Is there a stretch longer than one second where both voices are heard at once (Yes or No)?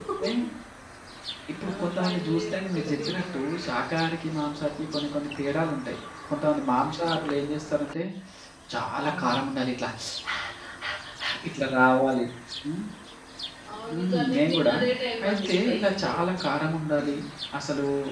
Yes